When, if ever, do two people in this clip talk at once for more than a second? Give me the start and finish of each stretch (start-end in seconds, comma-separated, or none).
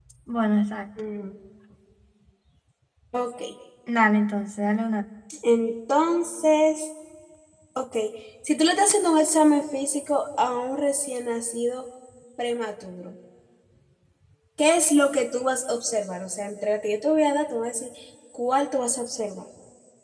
none